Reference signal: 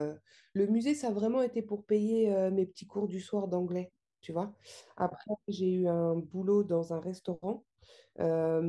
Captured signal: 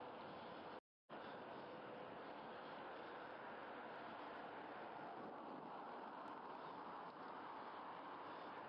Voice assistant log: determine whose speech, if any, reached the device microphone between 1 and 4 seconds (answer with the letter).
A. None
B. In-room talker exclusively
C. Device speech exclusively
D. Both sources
A